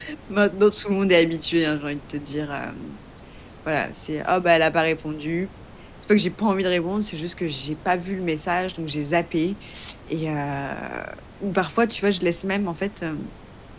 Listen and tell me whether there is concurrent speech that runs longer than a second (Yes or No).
No